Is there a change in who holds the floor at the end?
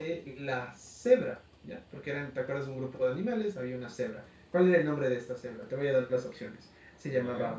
No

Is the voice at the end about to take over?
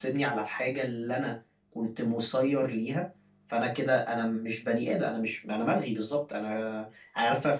No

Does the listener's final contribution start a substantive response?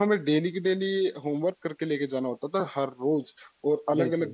No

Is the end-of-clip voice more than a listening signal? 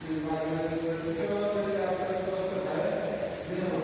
Yes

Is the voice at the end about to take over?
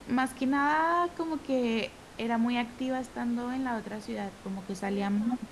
No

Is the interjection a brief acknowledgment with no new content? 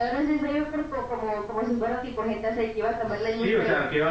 No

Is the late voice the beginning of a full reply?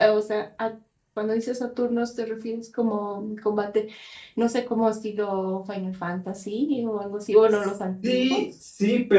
Yes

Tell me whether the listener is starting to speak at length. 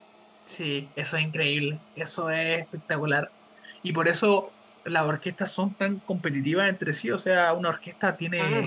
No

